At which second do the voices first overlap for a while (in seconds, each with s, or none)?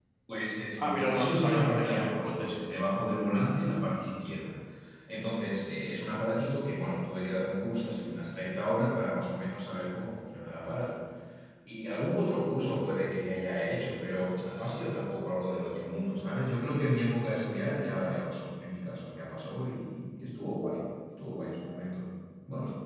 0.8 s